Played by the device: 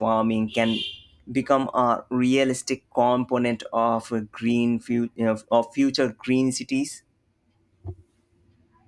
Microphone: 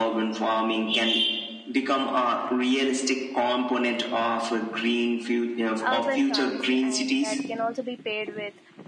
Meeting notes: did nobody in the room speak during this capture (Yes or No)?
No